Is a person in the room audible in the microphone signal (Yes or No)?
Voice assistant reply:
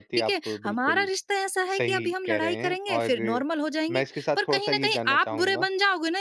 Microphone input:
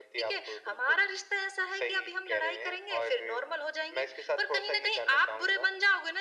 No